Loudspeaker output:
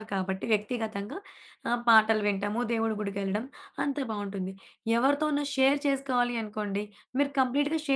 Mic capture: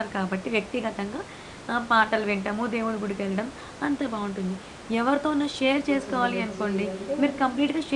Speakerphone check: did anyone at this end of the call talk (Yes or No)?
Yes